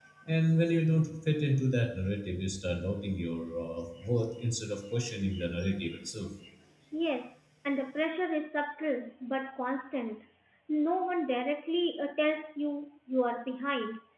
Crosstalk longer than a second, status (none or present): none